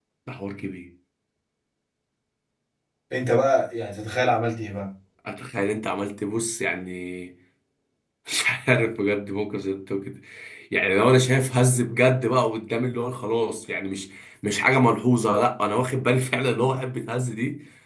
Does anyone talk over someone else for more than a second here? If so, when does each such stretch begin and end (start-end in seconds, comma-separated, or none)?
none